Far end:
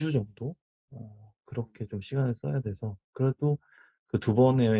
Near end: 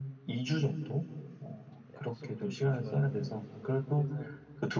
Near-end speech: present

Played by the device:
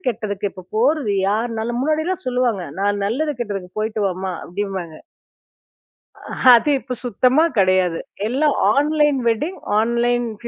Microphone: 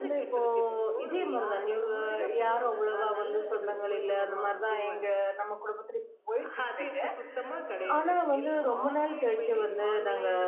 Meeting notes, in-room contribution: present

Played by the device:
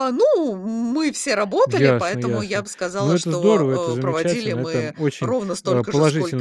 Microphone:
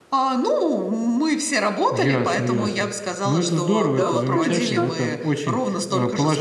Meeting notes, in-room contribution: present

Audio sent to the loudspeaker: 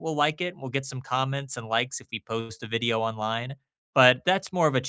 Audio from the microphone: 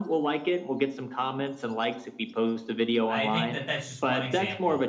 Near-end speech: present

